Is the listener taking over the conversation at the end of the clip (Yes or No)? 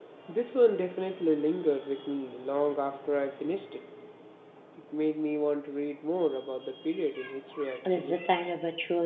Yes